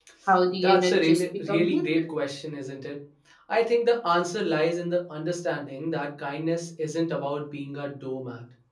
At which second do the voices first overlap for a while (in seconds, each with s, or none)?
0.6 s